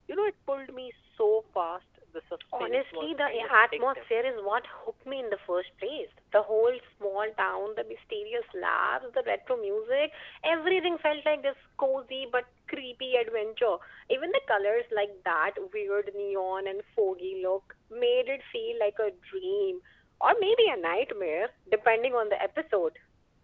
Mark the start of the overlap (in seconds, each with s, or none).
2.5 s